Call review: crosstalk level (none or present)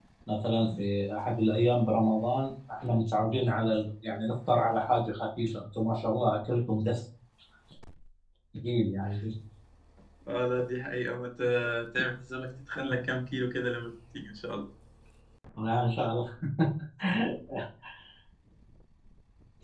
none